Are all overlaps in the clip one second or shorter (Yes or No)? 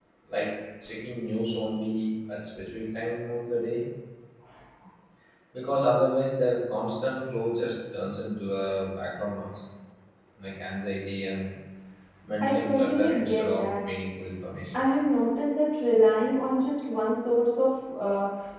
No